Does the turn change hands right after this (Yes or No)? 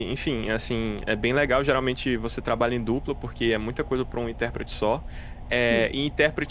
No